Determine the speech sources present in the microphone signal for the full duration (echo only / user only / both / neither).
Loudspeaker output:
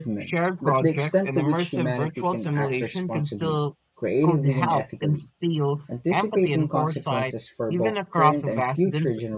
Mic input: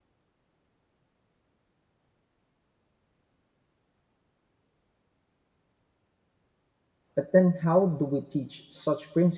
user only